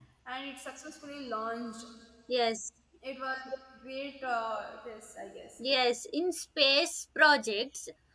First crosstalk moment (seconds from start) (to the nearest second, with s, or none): none